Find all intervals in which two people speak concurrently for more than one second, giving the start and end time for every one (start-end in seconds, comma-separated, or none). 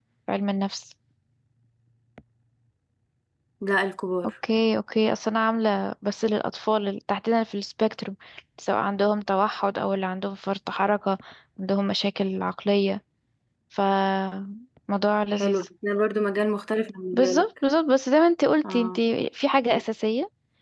none